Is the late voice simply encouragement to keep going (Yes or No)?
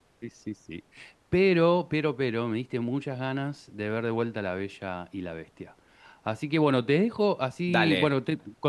Yes